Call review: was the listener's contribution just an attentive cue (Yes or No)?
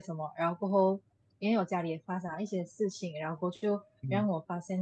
Yes